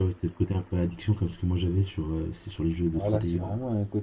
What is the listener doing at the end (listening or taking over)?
taking over